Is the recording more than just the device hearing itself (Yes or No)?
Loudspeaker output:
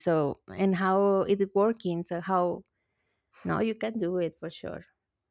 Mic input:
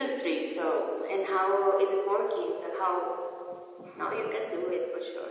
No